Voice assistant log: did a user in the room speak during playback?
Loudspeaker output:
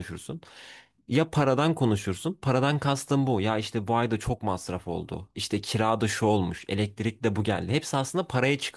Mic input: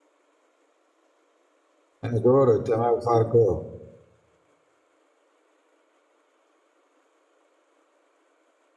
Yes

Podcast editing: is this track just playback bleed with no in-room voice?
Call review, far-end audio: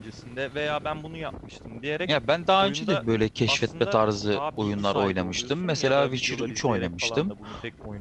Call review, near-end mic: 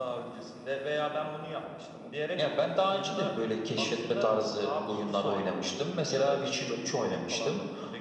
Yes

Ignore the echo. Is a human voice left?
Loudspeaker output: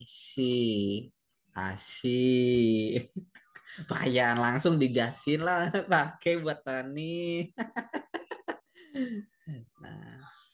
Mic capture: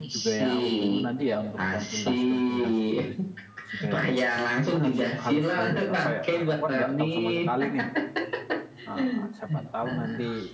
Yes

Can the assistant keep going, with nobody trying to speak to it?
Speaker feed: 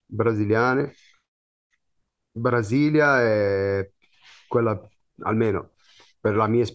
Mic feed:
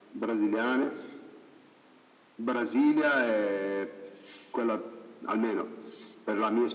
Yes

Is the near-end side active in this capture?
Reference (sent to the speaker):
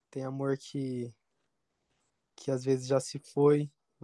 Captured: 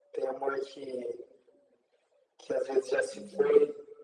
Yes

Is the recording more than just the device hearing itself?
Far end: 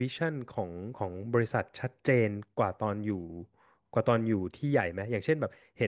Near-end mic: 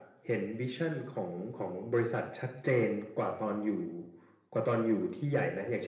No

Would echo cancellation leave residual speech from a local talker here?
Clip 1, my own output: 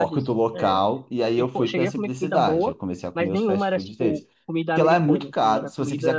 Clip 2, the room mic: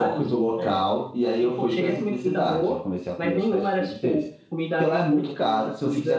No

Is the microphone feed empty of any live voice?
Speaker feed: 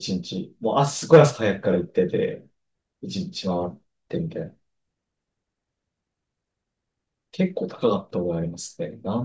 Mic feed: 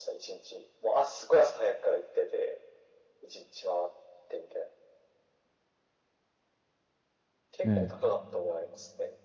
No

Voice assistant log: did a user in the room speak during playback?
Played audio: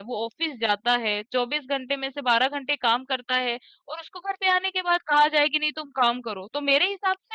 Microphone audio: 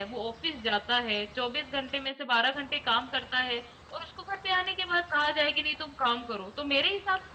No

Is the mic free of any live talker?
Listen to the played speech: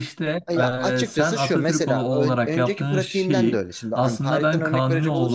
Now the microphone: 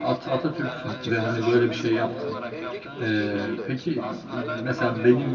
No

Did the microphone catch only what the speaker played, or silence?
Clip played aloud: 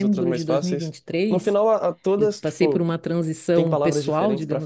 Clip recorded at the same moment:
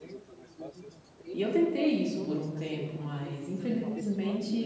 No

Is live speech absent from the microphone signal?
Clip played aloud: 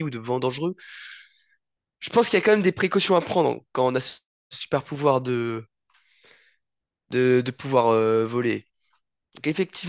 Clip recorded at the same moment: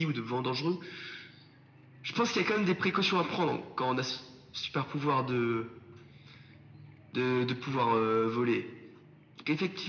Yes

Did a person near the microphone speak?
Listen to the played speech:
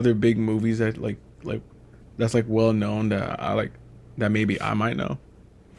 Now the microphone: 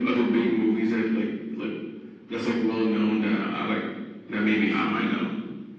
No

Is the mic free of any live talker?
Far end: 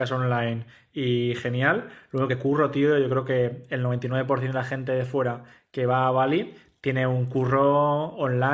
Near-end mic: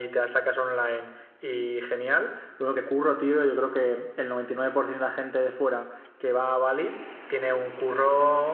Yes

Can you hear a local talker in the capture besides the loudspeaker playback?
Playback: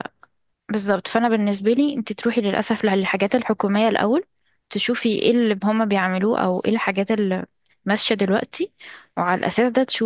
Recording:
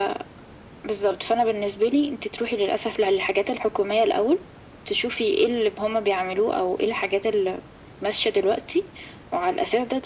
No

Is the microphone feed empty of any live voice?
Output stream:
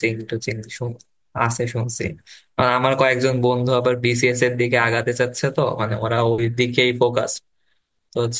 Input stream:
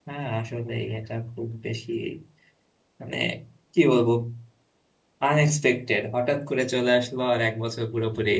No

